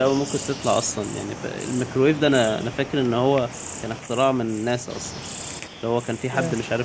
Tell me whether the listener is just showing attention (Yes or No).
Yes